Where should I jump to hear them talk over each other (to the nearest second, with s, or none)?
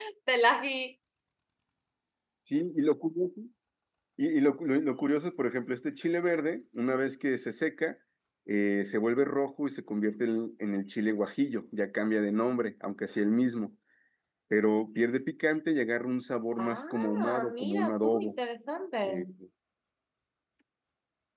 17 s